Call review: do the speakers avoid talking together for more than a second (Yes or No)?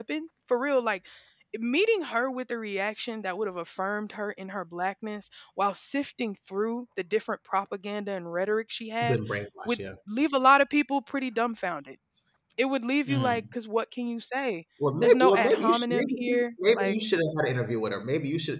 No